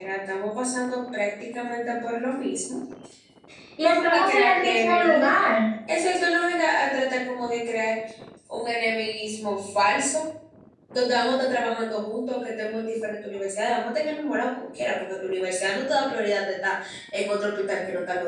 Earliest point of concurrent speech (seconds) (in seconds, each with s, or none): 3.8 s